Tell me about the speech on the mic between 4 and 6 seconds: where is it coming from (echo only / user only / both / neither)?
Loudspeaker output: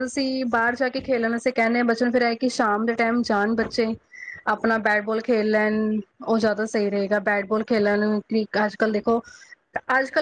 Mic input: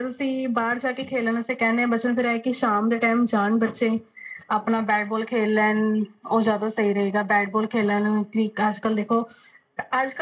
echo only